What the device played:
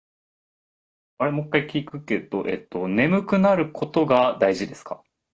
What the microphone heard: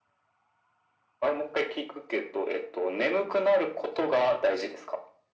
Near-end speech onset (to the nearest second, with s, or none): none